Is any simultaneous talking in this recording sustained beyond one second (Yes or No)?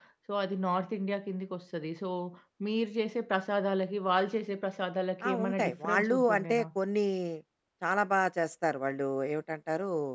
Yes